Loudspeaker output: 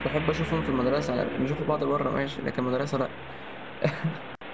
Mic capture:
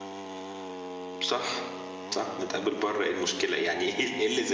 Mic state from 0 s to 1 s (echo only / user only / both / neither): neither